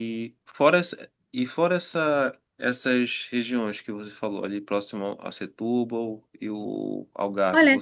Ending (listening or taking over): taking over